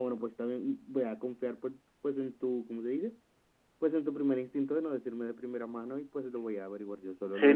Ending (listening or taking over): taking over